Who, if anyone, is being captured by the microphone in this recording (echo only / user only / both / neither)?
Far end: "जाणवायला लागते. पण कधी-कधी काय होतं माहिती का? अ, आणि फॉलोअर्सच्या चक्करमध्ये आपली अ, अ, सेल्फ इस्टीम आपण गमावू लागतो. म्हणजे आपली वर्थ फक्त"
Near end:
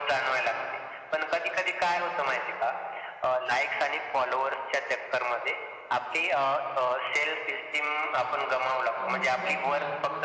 both